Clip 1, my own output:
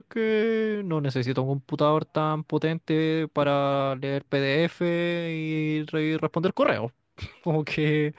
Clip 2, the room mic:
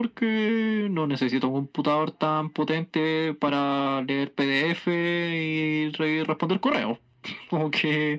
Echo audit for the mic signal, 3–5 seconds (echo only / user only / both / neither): echo only